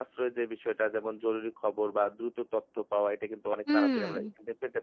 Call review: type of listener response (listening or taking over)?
listening